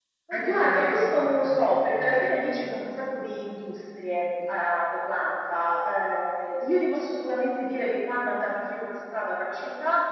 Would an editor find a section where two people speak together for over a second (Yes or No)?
Yes